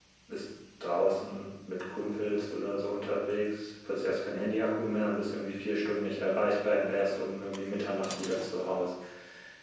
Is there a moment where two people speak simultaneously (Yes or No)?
No